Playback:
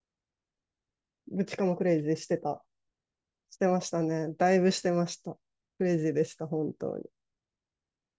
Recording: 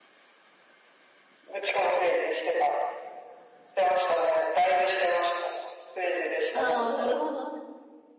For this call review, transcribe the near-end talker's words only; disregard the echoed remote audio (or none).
ああ、なるほどね。